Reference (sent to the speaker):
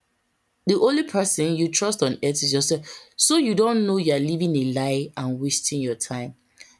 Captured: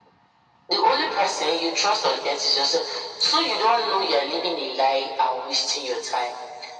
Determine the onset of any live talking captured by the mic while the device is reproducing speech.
none

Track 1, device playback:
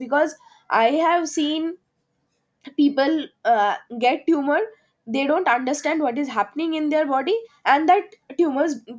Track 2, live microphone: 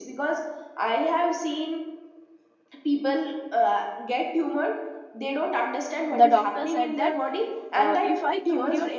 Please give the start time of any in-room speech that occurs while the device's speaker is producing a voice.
6.1 s

